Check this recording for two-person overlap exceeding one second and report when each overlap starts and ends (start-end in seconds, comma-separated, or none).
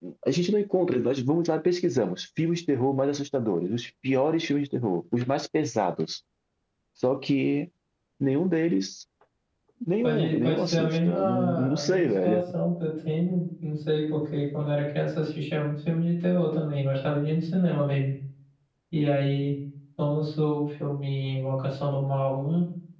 10.0-12.4